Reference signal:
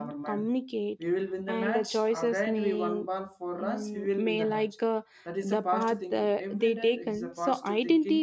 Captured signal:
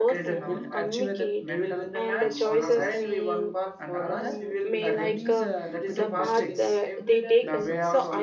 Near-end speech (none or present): present